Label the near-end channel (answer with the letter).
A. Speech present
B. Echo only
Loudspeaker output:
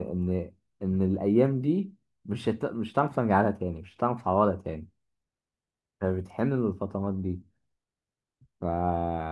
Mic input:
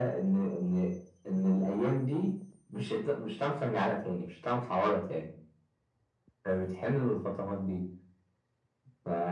B